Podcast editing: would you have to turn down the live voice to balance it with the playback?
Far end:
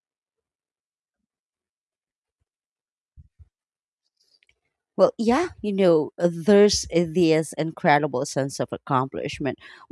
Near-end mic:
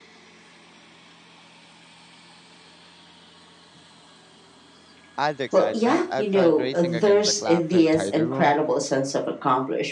No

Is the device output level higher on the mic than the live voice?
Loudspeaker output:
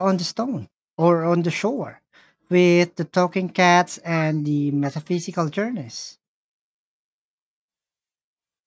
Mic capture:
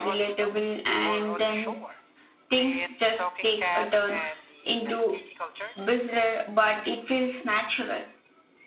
No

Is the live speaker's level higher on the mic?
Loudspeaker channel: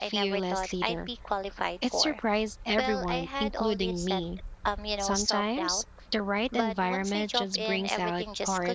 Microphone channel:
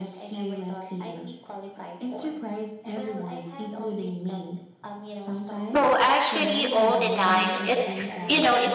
Yes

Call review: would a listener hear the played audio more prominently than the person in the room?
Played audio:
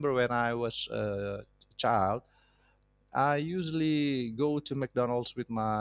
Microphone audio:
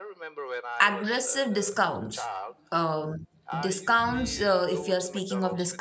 No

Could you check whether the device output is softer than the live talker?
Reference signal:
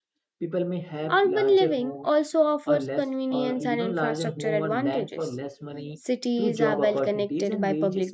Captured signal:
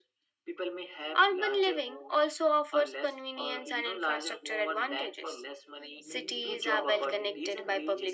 No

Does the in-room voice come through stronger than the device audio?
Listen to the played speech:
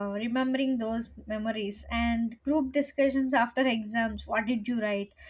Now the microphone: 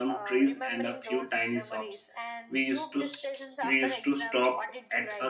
Yes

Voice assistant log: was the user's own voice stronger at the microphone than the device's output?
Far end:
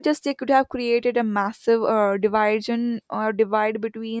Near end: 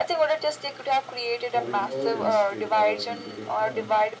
No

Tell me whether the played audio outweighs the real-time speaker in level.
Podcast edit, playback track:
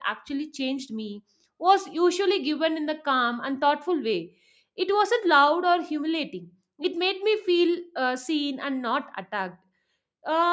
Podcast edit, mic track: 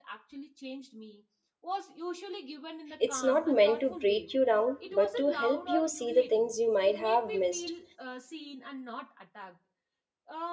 No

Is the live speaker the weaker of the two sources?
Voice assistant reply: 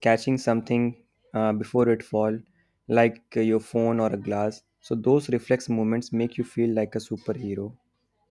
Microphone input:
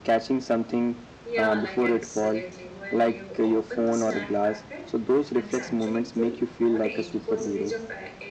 Yes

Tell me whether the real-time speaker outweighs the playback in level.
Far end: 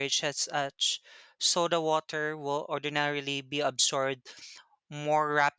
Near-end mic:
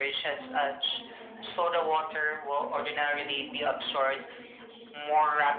No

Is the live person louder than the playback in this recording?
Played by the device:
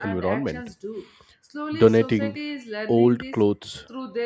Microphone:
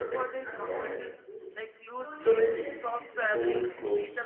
No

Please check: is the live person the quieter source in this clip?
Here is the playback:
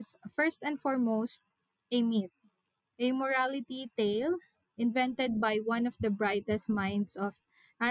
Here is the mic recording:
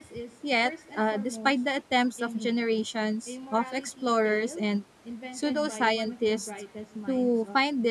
No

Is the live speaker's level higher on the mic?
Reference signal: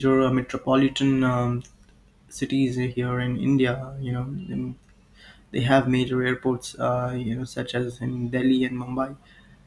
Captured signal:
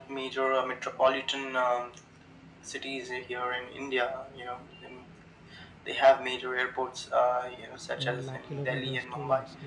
No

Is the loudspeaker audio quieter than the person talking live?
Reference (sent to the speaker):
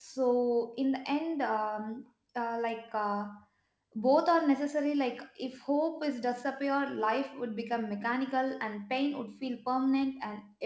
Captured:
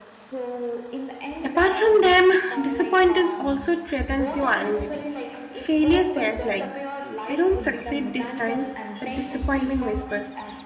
Yes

